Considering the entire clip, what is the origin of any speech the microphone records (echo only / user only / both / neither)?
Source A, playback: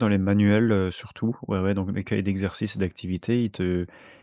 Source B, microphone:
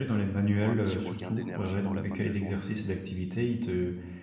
both